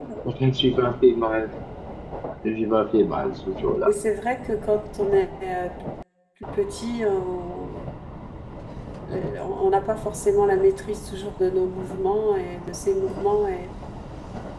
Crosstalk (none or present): none